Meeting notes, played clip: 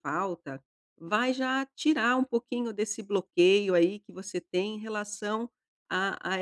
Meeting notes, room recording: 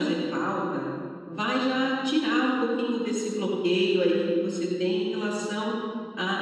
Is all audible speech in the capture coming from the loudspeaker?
Yes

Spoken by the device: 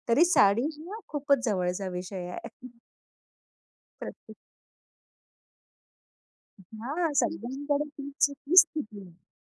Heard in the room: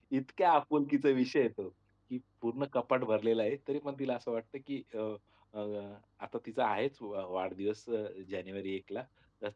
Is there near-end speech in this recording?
Yes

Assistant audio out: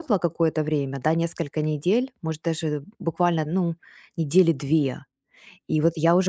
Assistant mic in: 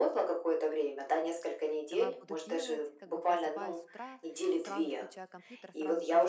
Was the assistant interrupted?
Yes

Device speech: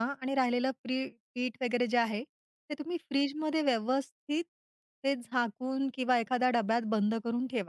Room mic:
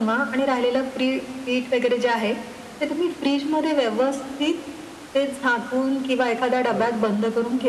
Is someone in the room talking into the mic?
Yes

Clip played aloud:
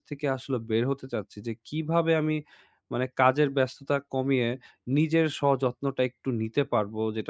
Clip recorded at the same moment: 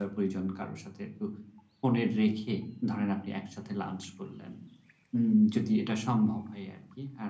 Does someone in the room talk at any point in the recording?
Yes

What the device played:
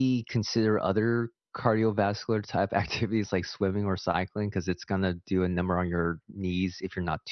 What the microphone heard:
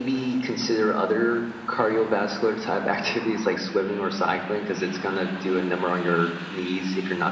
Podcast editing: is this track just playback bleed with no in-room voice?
Yes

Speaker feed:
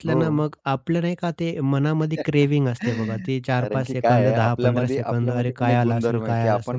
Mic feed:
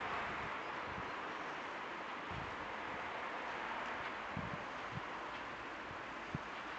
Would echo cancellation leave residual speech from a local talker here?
No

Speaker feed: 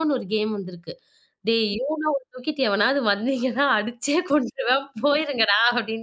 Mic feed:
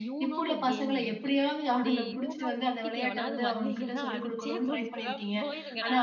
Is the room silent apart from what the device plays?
No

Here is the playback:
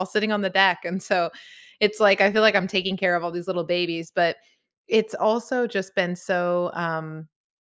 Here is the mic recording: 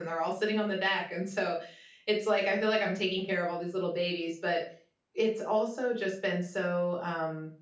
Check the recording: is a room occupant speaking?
No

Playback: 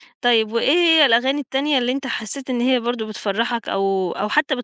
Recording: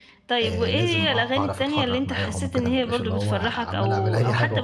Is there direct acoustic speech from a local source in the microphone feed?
Yes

